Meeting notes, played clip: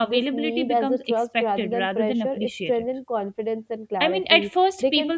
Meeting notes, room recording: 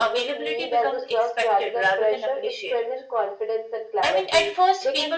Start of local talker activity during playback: none

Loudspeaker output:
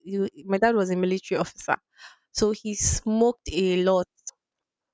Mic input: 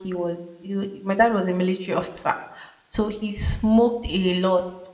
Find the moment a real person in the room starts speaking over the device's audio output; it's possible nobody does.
none

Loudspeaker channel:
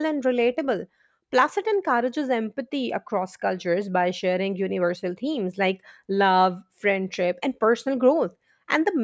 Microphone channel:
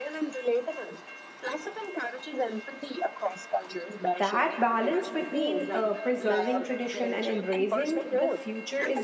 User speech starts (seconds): 4.2 s

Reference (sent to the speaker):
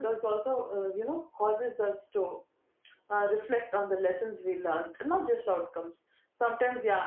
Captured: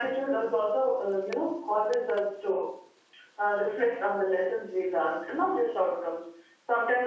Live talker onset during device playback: none

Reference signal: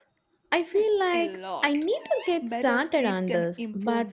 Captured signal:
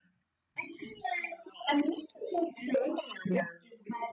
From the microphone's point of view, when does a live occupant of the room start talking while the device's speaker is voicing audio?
none

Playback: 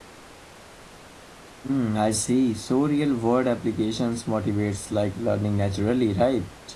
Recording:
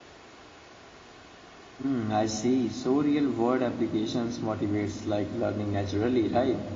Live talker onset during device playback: none

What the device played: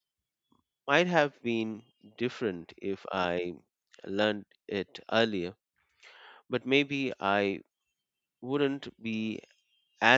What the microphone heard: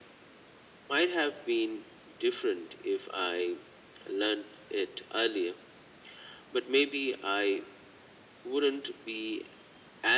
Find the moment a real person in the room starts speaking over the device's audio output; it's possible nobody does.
none

